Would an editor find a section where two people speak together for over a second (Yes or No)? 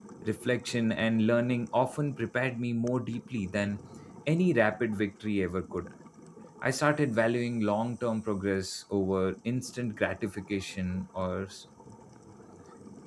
No